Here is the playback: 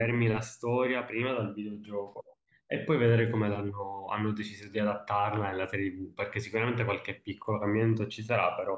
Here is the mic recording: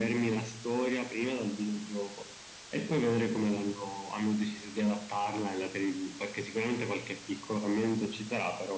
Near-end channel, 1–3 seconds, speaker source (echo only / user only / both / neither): echo only